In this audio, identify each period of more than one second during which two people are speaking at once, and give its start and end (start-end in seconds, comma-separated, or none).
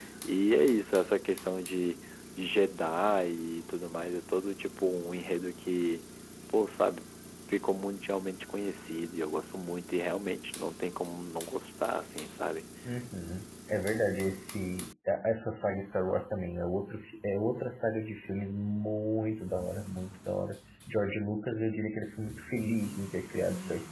none